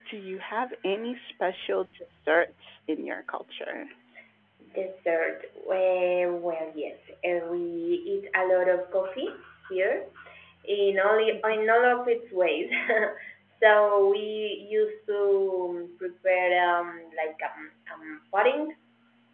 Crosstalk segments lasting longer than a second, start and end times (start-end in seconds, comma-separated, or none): none